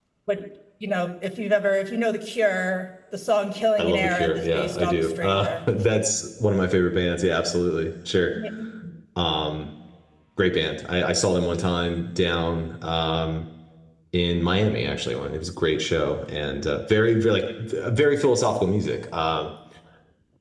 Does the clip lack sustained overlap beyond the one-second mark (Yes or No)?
No